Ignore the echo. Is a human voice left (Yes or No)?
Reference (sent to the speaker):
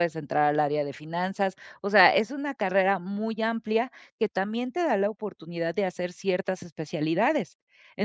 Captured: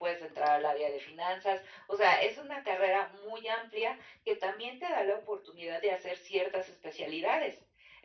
No